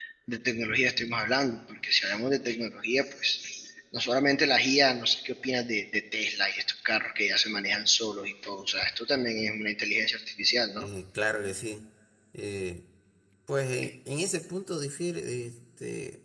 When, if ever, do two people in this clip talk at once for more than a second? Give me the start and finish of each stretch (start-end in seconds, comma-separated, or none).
none